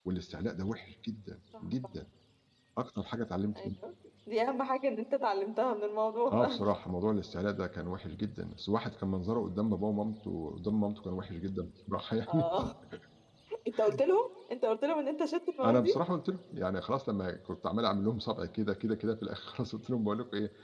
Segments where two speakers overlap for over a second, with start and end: none

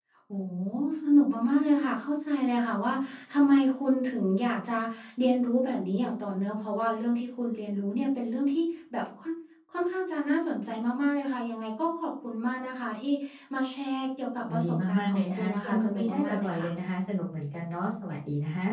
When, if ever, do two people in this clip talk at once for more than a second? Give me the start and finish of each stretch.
14.5-16.7

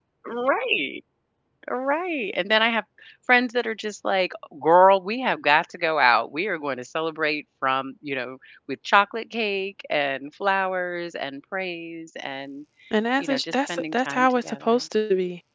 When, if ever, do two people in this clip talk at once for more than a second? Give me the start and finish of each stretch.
13.2-14.8

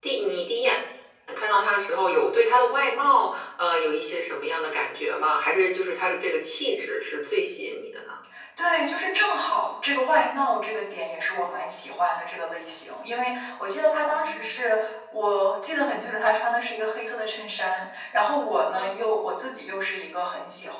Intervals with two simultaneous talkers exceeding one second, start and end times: none

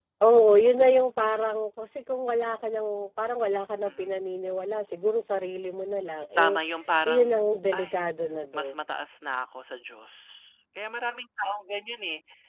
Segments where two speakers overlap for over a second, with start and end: none

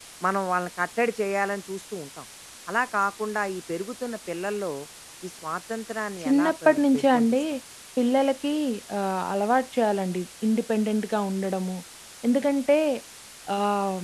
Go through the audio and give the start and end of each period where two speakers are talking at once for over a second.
6.2-7.4

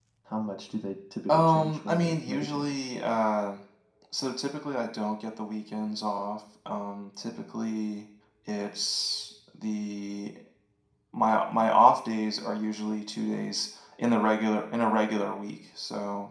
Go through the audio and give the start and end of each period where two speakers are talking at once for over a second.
1.3-2.7

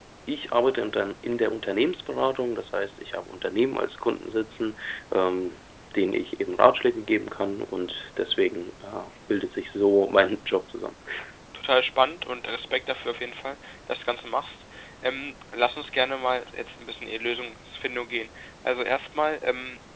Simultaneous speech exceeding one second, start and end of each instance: none

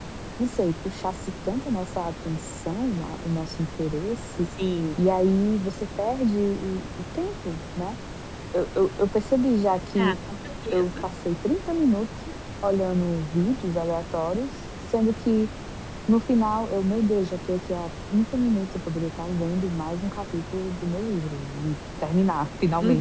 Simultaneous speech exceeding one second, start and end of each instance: none

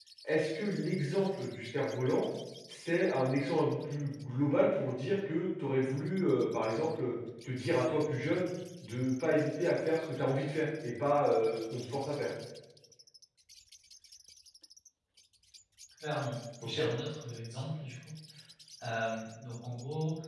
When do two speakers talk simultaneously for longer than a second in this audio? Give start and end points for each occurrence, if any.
none

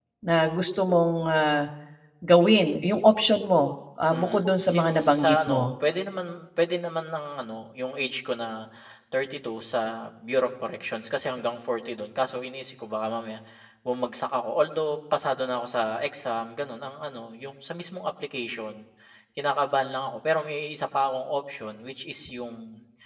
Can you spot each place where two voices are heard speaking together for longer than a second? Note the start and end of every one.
4.1-5.7

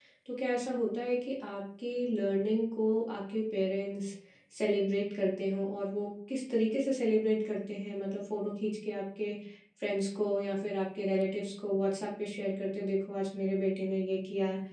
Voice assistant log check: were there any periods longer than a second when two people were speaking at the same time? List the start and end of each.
none

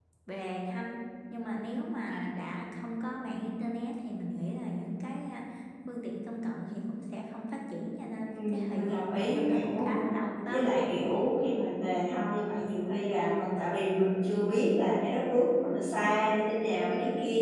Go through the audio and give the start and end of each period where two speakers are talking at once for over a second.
8.3-9.9

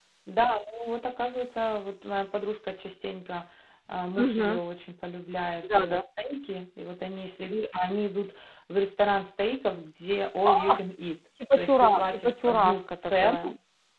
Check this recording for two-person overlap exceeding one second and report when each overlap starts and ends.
11.6-13.4

